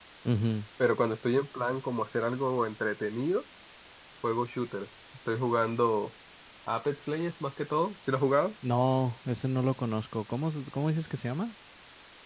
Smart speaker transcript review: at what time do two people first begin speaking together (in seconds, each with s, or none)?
none